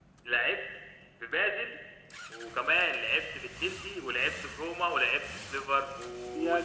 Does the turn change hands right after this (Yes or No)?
Yes